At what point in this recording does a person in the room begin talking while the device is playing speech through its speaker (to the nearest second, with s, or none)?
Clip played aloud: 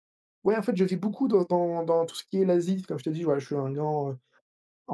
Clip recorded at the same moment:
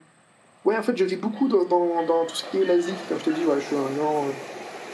none